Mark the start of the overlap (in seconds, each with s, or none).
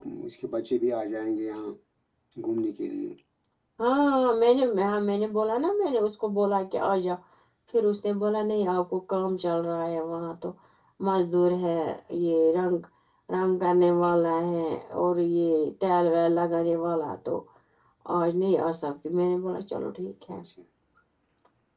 none